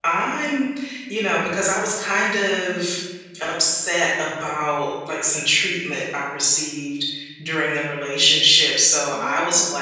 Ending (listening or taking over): listening